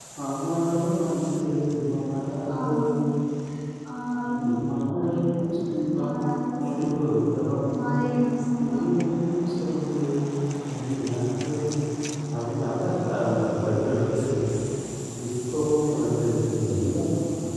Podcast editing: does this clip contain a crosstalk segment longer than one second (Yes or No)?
No